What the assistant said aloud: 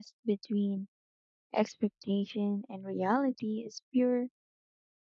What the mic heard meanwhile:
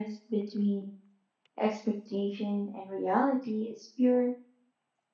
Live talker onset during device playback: none

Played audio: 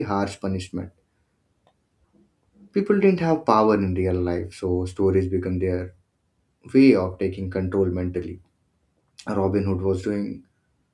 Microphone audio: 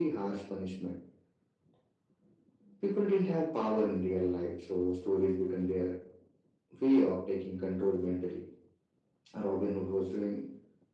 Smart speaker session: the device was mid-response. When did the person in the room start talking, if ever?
none

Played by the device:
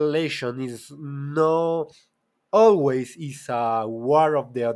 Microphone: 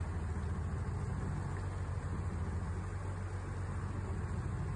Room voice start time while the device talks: none

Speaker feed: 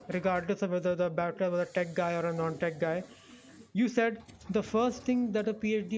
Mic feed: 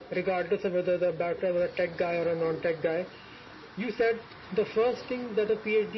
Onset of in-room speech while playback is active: none

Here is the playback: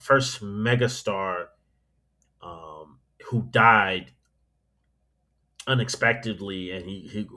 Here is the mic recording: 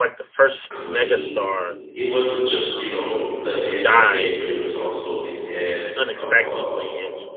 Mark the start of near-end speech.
0.7 s

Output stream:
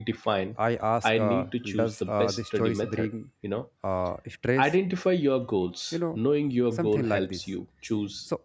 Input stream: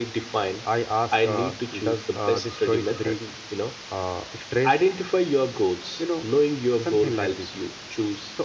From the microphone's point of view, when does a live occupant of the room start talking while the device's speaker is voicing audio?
none

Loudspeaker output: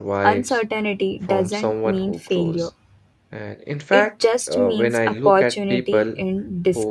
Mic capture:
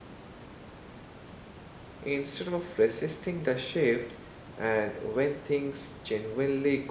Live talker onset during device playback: 2.0 s

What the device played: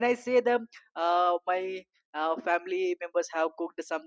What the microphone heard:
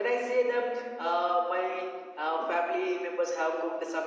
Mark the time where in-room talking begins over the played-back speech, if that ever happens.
none

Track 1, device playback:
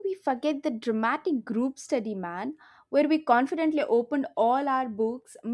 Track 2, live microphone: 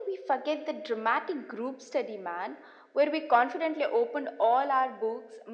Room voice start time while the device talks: none

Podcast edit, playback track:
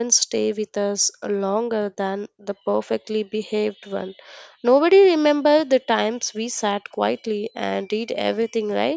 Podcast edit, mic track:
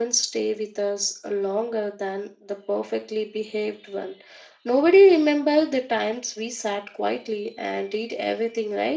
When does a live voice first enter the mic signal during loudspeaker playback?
none

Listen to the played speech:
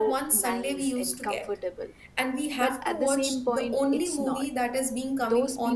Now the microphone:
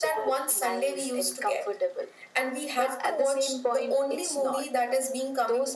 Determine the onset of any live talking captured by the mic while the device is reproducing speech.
none

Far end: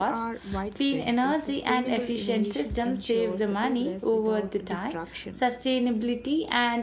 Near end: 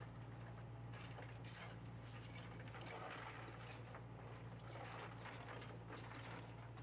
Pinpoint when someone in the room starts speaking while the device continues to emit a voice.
none

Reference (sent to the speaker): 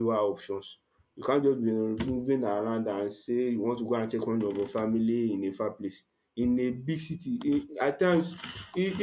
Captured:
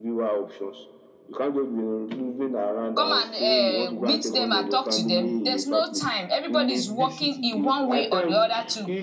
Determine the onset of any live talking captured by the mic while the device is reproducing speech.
3.0 s

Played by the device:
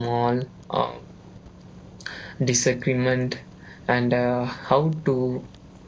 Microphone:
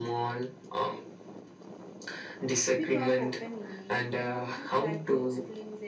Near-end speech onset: 2.8 s

